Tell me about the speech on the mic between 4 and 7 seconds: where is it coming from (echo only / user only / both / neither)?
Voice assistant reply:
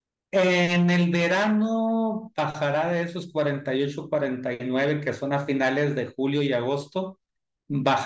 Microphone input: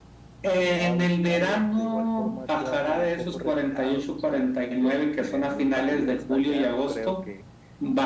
both